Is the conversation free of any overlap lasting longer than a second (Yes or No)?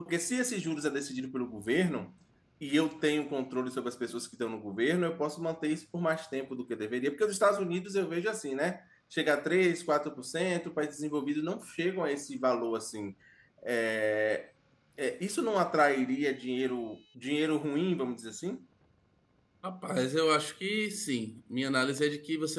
Yes